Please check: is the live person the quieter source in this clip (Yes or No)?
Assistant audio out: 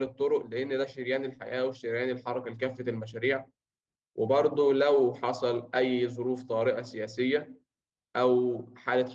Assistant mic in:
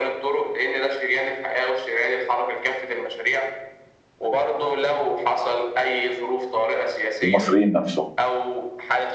No